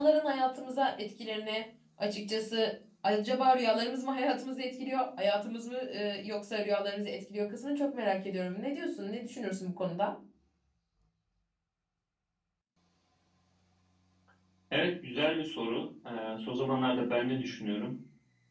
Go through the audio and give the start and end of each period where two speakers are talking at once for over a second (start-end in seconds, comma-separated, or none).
none